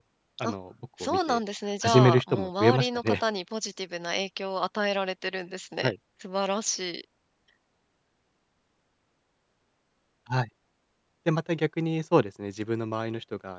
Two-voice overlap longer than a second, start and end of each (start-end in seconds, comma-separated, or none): 1.8-3.2